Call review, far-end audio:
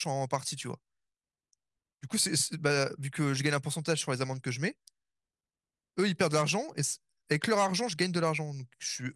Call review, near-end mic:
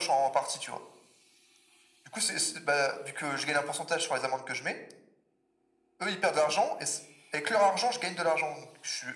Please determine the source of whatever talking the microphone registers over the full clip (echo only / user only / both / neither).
echo only